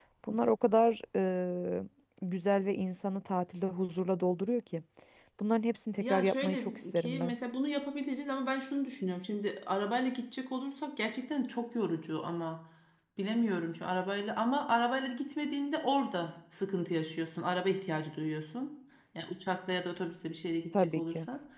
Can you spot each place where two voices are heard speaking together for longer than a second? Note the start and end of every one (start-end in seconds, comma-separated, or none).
6.0-7.3